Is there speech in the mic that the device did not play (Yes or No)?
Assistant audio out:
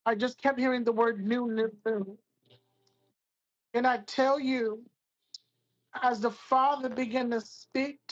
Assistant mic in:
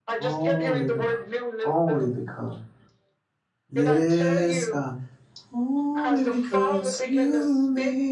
Yes